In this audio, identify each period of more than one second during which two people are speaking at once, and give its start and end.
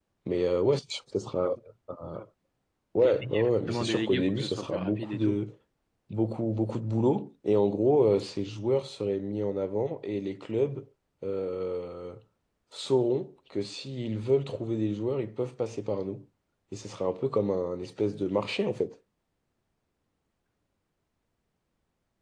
3.7-5.4

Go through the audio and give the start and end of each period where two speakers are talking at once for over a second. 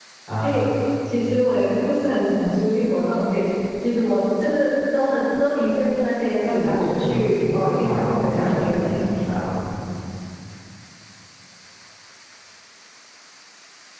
6.5-8.9

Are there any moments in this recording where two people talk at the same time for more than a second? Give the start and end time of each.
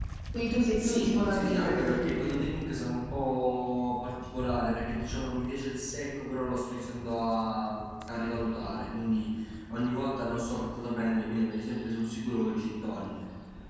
0.8-2.4

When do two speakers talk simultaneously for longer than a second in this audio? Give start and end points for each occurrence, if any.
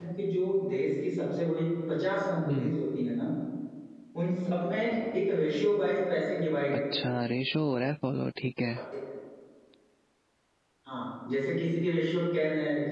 none

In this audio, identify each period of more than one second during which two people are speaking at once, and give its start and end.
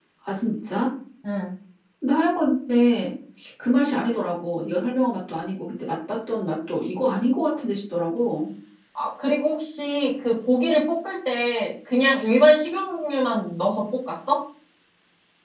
none

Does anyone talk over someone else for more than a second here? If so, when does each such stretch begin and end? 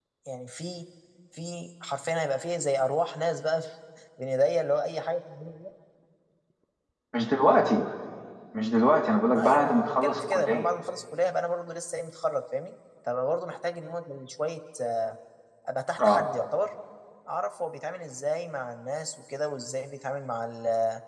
9.4-10.7

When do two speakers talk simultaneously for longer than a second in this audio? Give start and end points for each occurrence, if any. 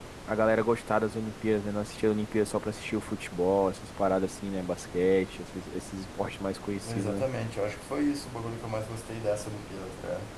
none

